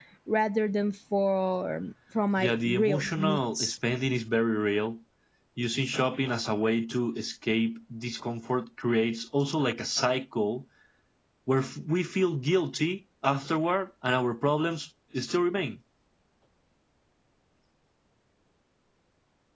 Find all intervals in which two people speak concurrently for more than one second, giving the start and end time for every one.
2.4-3.7

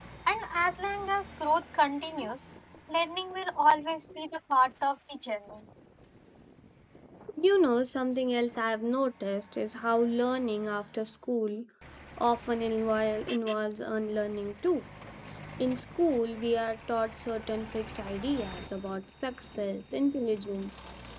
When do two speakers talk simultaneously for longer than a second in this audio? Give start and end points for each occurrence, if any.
none

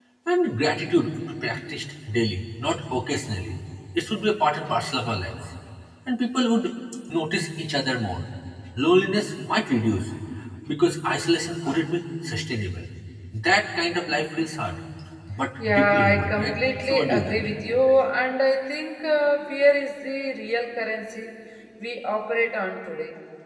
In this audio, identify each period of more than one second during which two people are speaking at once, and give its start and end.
15.6-17.5

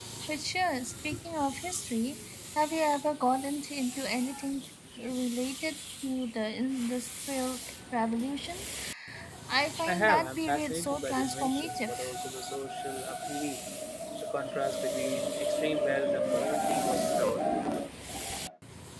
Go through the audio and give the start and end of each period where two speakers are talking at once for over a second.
9.9-12.0

